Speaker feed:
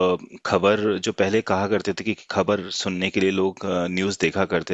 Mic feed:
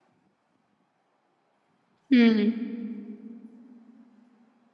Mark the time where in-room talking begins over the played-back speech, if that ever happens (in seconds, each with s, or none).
2.1 s